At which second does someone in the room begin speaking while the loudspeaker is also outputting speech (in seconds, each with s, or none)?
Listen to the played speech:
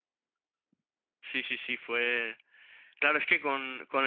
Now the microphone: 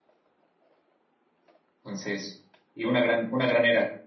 1.8 s